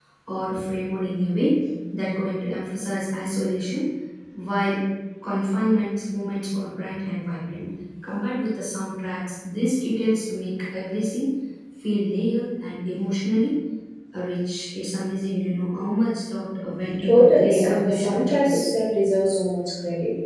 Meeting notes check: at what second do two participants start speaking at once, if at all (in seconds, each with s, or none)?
17.0 s